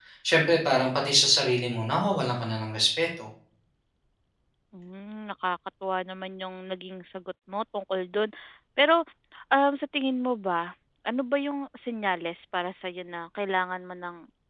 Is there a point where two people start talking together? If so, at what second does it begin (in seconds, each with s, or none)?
none